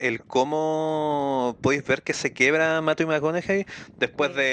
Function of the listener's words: listening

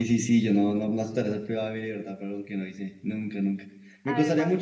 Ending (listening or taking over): listening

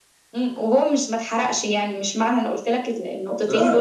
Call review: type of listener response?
taking over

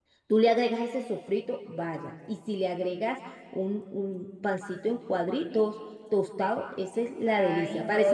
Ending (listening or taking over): taking over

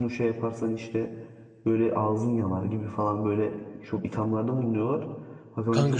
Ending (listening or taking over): listening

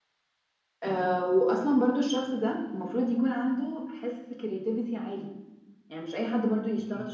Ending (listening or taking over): listening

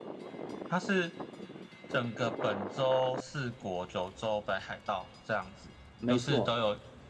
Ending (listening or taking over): listening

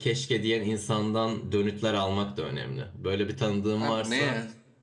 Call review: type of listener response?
taking over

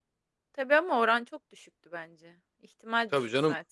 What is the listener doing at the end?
taking over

